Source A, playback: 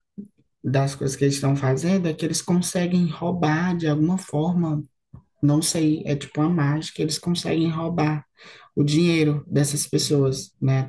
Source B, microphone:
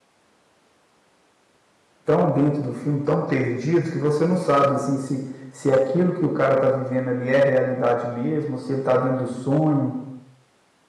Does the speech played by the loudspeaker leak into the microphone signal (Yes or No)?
No